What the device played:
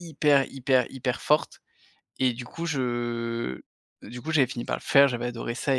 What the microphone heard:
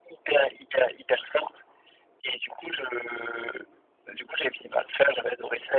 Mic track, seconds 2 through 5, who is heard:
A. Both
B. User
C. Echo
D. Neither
C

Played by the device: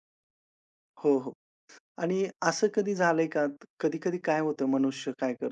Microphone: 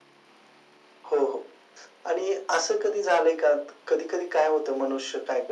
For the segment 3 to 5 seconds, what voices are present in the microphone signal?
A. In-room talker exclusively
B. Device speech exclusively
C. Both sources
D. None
B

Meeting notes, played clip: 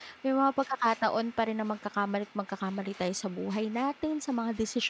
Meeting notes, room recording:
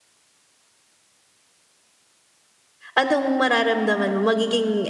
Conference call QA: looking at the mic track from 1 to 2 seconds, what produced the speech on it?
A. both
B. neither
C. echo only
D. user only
B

